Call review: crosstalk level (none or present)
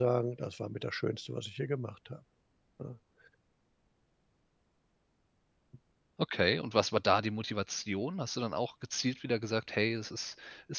none